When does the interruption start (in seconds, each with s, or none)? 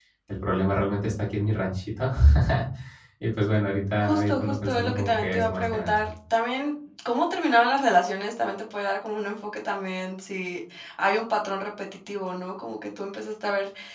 4.0 s